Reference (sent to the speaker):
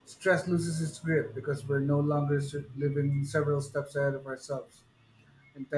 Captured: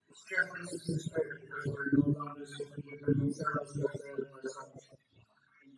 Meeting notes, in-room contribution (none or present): none